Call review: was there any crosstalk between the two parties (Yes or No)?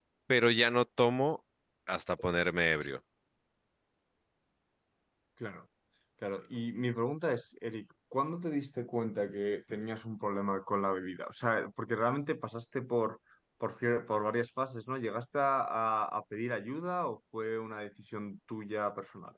No